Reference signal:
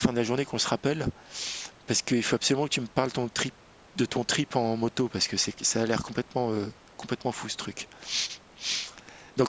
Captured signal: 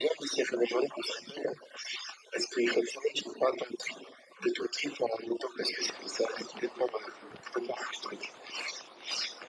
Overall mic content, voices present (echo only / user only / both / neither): echo only